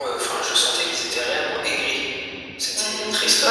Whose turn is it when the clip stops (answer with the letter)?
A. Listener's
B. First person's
A